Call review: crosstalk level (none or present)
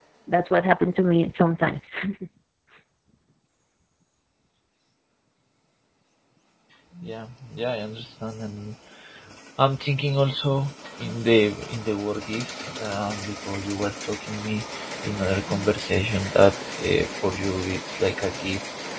none